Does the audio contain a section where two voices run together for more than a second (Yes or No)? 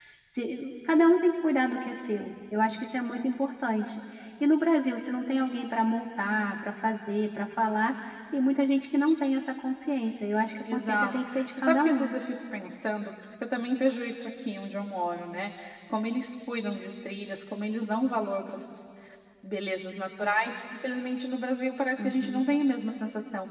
Yes